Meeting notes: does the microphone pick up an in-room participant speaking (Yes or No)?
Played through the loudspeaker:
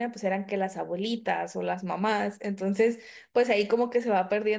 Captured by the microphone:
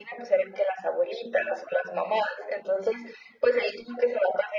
No